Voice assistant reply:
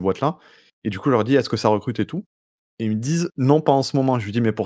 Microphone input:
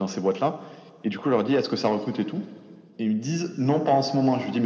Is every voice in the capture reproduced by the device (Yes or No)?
Yes